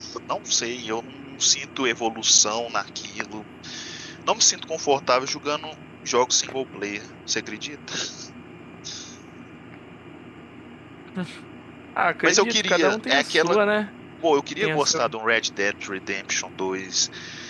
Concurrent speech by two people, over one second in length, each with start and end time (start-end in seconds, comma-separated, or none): 12.2-13.6